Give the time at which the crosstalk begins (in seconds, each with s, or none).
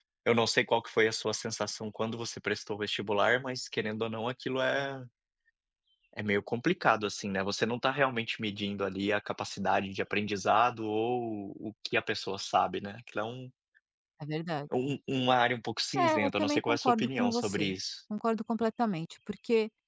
15.9 s